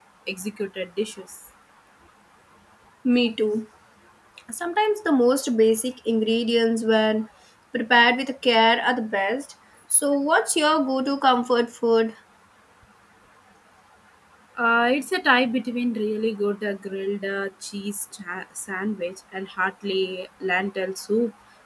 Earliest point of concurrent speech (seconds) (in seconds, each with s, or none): none